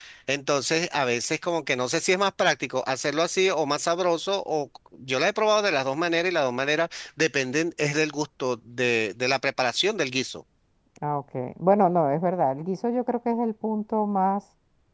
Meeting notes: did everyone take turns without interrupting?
Yes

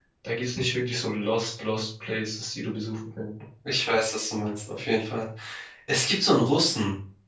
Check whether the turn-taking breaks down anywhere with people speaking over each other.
No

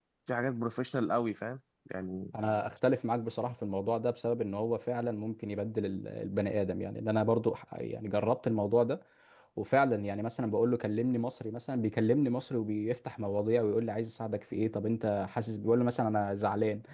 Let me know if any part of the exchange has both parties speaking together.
No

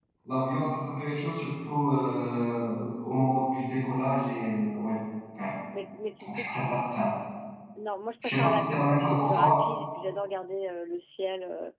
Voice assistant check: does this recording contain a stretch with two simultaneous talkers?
Yes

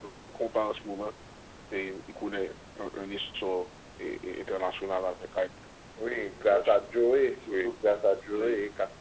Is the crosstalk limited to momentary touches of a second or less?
Yes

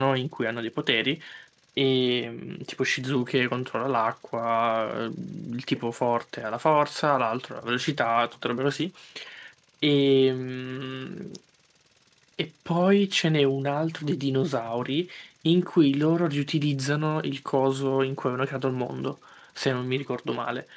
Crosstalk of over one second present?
No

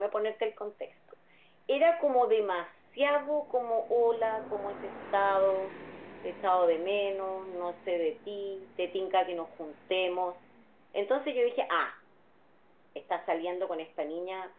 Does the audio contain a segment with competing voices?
No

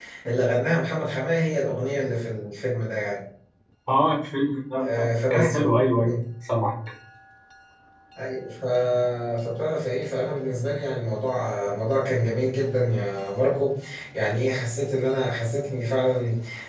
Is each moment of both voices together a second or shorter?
Yes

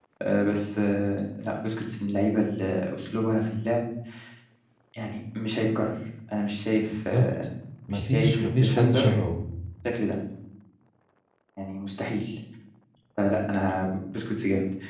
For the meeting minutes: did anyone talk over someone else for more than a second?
Yes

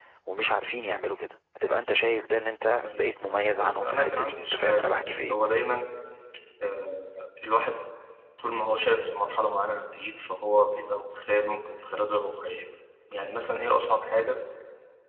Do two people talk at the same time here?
Yes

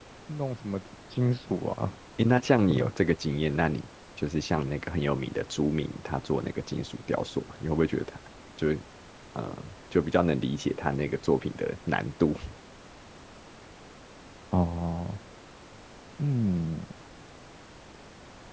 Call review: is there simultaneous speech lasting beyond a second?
No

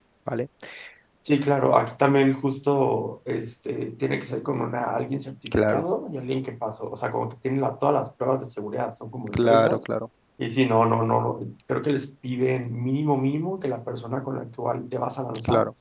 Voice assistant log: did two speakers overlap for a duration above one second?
No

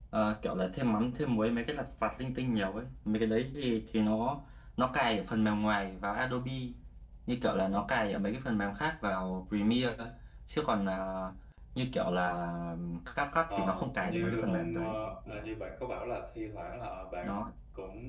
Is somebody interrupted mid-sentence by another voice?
Yes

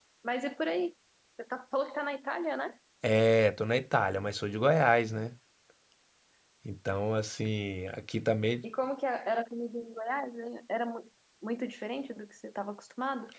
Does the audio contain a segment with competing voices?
No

